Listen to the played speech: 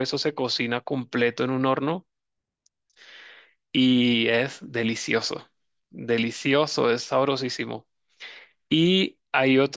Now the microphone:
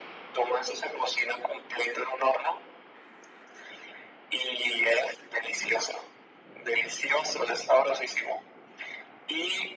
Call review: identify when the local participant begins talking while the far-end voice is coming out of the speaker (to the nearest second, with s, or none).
none